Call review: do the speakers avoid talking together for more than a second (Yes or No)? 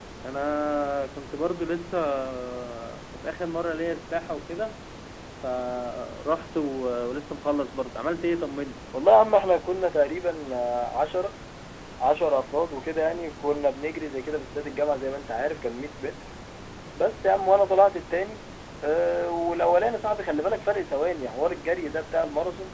Yes